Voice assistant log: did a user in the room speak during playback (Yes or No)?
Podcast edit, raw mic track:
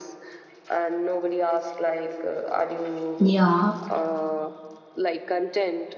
Yes